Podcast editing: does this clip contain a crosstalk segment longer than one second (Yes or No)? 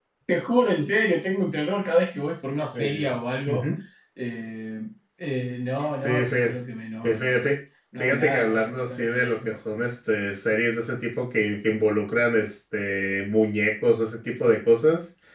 Yes